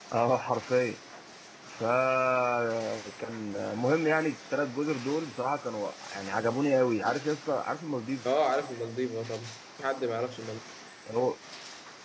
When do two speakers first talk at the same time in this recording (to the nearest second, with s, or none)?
none